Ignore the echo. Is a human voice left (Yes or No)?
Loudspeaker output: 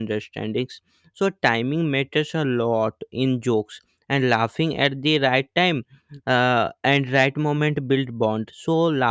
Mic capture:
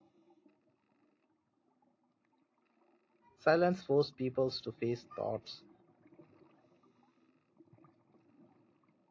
Yes